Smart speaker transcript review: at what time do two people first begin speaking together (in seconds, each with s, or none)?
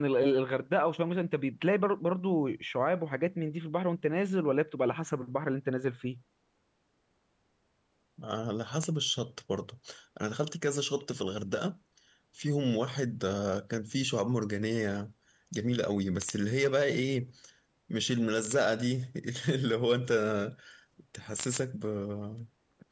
none